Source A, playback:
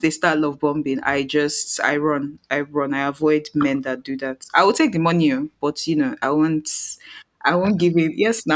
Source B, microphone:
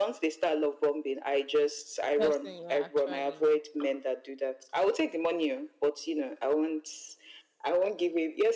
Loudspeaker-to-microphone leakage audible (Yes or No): Yes